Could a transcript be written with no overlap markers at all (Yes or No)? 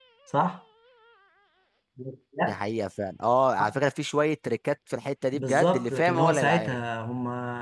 No